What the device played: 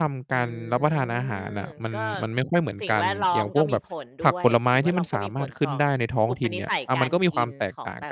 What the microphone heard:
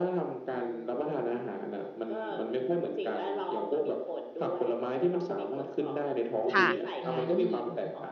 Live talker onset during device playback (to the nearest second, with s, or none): 7 s